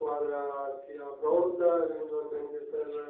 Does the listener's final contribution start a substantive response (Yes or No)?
Yes